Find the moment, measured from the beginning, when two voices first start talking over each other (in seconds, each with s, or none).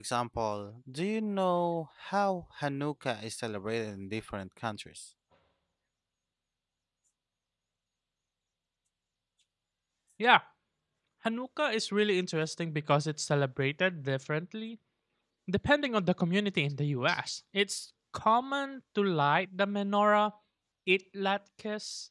none